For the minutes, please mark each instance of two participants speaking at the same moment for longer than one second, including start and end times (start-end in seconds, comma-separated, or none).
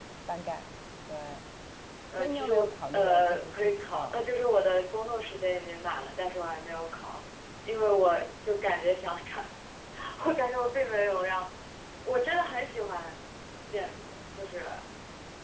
2.2-4.1